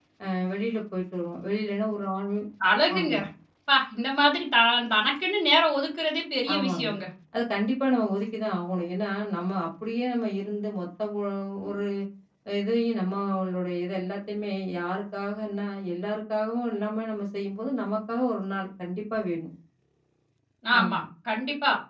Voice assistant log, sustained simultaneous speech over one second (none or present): none